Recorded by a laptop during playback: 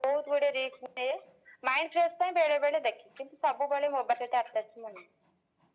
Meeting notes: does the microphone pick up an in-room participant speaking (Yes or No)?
No